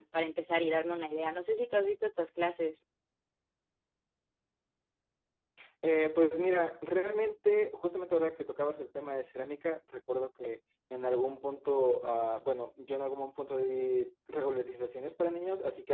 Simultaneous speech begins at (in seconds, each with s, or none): none